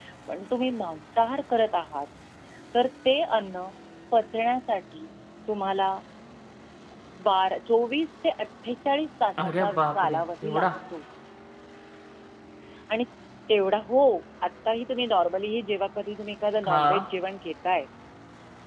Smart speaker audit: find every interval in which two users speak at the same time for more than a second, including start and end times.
9.4-10.7

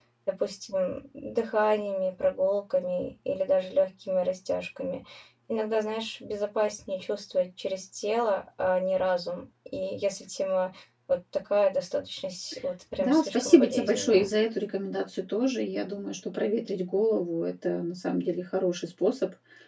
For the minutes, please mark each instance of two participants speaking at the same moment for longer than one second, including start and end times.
13.0-14.3

